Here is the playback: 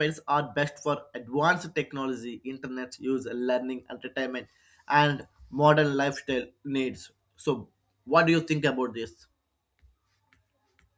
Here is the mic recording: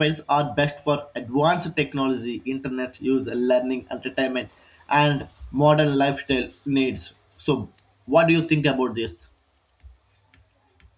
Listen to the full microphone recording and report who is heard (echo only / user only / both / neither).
echo only